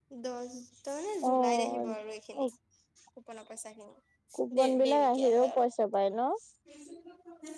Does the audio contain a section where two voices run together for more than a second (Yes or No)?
Yes